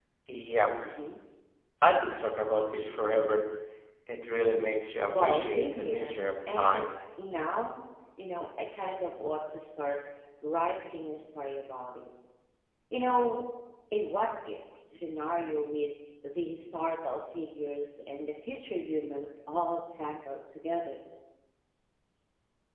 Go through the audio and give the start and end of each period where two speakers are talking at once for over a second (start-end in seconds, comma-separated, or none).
5.1-6.9